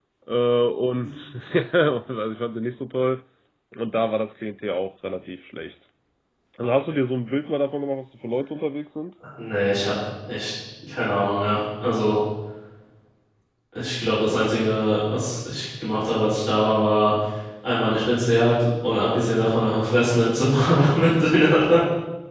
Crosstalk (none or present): none